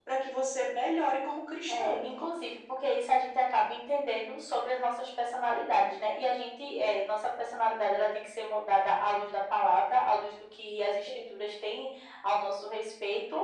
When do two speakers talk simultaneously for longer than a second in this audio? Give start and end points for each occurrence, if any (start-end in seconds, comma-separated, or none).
none